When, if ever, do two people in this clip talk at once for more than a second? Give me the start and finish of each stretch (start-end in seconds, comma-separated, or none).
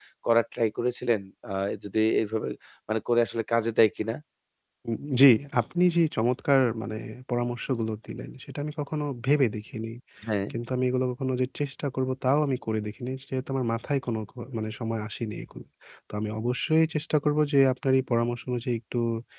none